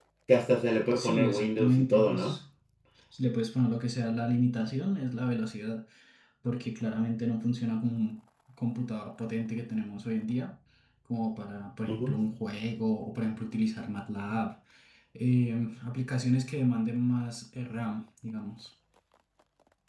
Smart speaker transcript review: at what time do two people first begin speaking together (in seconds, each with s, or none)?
0.9 s